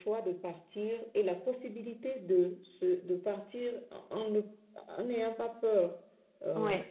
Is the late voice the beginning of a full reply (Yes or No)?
No